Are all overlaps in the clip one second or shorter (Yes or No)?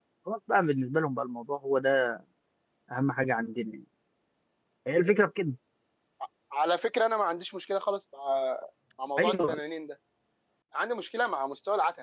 Yes